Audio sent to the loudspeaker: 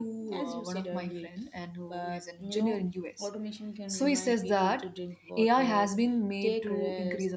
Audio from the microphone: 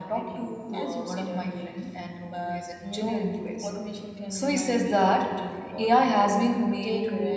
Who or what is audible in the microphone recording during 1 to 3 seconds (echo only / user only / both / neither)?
echo only